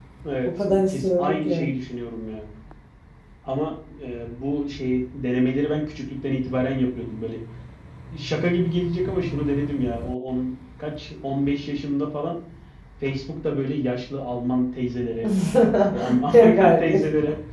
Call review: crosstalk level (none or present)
present